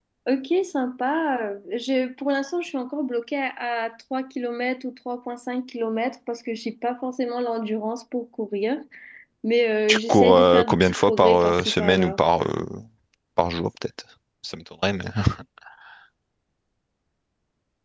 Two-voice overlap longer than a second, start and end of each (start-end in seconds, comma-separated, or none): 9.9-12.2